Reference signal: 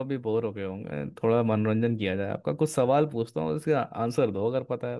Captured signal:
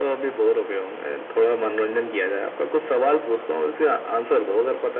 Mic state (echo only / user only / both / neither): echo only